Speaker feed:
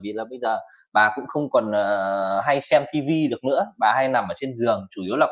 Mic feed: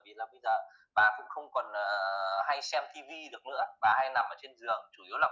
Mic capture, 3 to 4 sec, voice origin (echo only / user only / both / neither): echo only